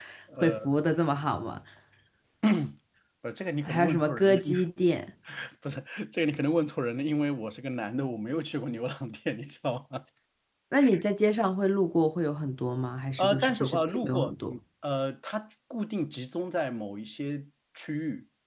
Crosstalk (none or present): present